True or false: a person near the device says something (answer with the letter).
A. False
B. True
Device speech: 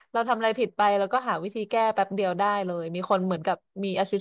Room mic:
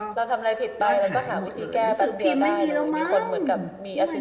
B